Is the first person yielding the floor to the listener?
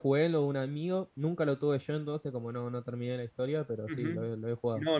Yes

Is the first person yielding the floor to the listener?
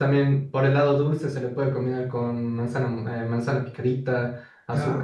Yes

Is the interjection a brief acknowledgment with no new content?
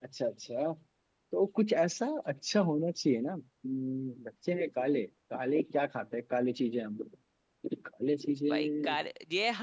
No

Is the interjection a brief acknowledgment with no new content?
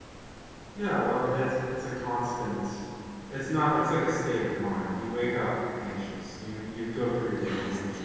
Yes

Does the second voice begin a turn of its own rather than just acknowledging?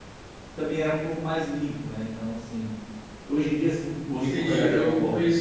Yes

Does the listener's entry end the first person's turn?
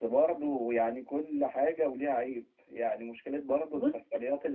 No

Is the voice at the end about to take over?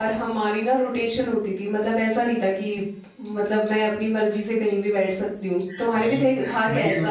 Yes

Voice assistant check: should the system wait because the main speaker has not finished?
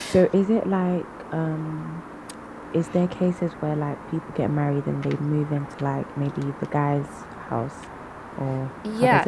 No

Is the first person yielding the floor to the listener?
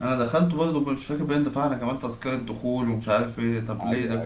No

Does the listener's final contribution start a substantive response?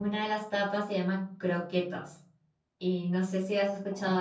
Yes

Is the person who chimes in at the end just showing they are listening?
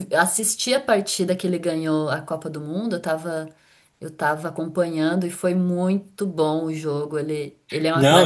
No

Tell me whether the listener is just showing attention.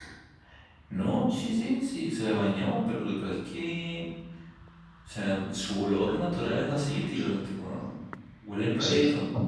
No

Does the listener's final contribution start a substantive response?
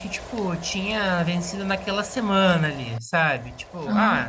No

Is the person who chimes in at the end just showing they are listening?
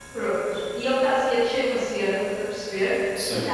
Yes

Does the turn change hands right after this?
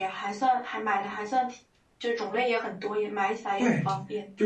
Yes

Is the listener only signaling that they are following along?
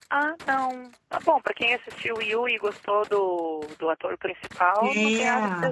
No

